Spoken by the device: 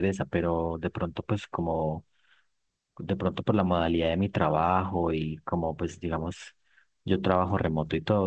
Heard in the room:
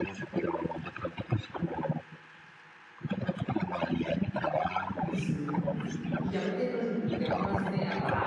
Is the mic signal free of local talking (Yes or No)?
No